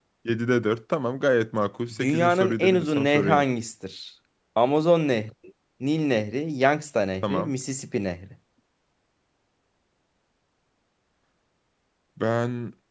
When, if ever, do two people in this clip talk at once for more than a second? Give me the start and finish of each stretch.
2.0-3.5

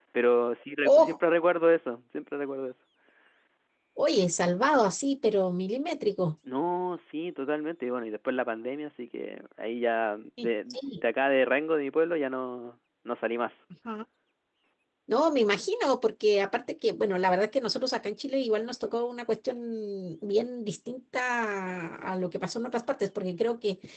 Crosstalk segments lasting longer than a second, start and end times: none

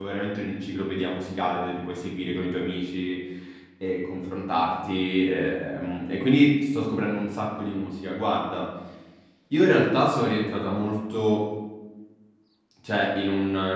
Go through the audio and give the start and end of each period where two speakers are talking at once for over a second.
none

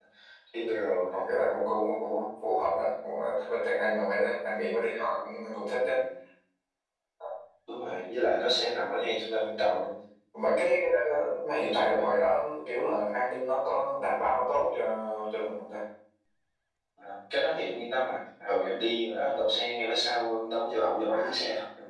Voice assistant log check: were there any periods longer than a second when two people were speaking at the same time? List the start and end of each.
none

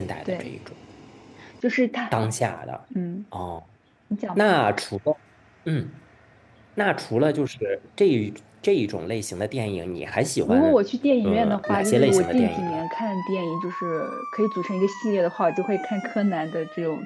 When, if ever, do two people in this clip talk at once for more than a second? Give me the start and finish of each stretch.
11.2-12.8

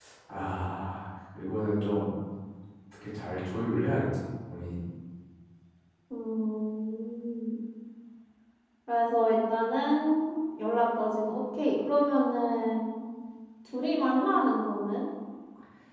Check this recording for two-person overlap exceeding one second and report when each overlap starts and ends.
none

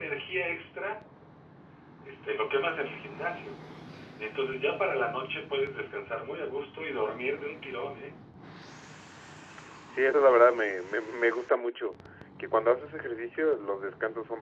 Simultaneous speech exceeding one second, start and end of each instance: none

